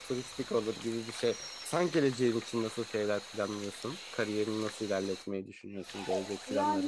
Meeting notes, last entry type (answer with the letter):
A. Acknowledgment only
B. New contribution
B